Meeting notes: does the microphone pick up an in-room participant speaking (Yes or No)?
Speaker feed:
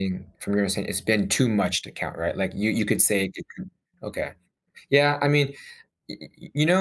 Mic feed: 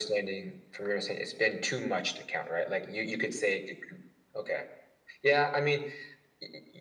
No